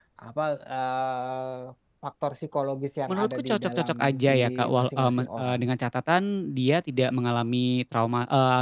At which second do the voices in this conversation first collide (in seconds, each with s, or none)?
3.1 s